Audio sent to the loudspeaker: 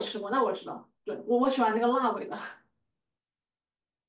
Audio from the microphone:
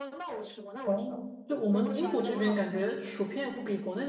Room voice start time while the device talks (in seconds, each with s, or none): 0.8 s